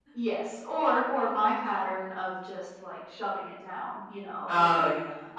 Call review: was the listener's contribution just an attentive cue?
Yes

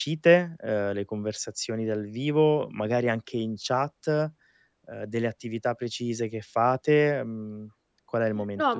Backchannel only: No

